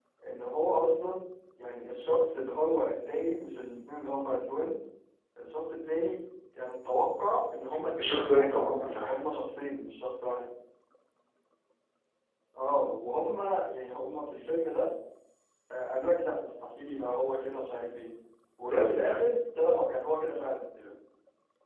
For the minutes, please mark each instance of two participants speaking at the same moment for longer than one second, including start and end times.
none

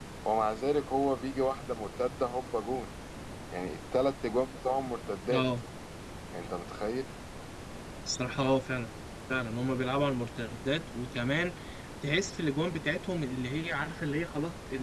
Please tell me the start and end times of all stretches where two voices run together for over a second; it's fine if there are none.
none

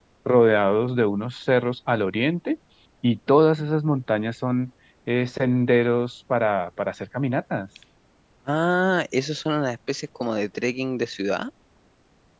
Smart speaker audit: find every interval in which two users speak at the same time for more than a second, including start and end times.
none

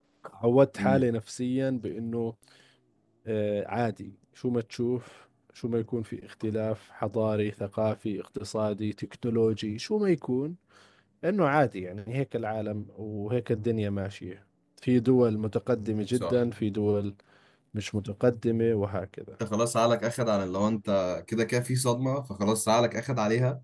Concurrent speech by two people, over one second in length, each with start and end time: none

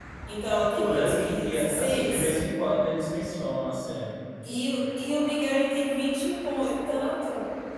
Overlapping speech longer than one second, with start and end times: 0.8-2.4

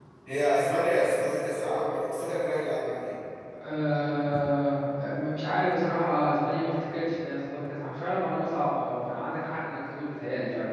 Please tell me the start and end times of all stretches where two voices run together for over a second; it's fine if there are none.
none

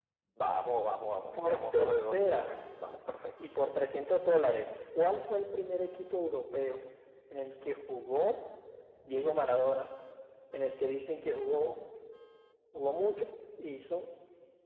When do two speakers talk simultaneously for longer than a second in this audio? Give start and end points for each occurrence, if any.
1.4-2.6

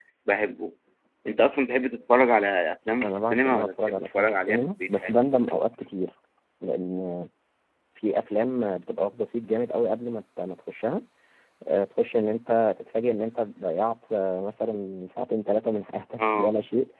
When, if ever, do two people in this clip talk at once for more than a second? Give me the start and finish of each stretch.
3.0-5.2

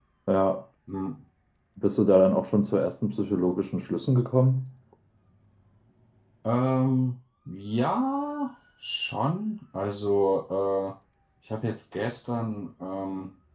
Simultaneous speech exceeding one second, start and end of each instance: none

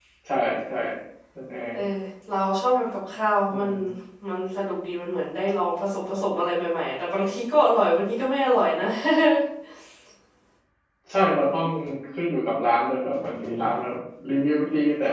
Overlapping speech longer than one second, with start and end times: none

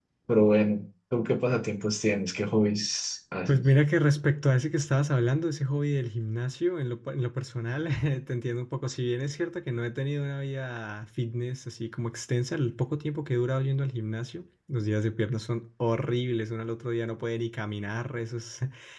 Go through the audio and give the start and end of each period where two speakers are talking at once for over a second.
none

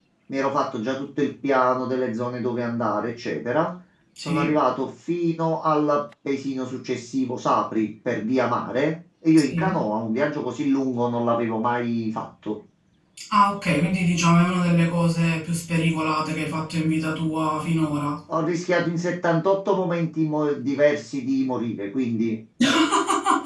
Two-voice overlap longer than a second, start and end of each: none

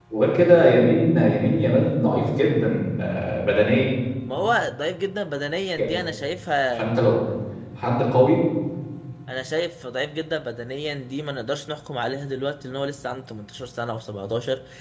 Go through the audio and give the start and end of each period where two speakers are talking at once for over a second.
none

